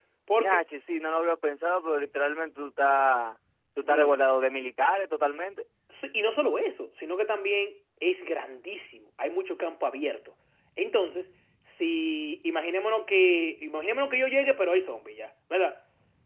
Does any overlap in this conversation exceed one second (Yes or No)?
No